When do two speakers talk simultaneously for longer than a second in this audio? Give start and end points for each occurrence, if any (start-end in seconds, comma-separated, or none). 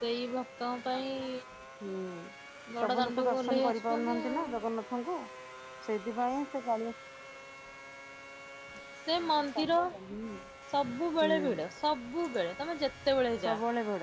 2.8-4.3